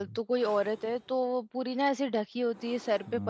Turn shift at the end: No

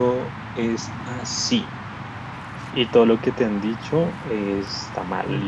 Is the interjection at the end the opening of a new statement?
No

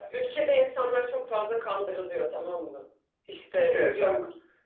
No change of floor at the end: Yes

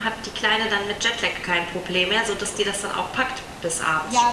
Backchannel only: No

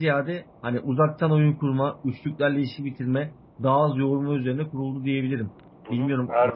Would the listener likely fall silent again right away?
No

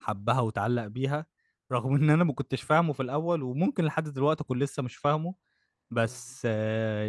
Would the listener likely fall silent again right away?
Yes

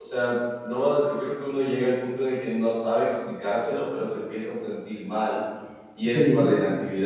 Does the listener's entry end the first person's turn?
No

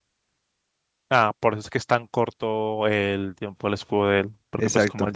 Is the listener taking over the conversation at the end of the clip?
No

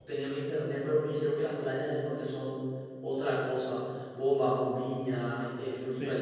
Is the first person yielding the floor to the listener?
No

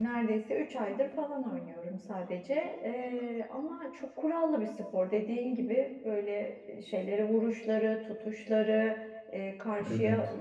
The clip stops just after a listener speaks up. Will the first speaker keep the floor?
Yes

